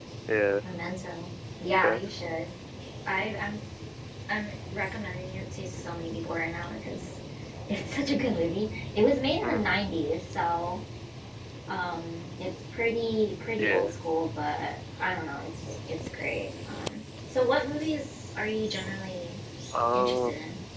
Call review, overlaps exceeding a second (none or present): none